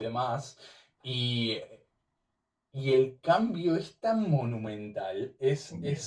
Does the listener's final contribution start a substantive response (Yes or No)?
No